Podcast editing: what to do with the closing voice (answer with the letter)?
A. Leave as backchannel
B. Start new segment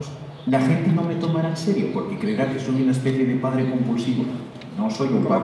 B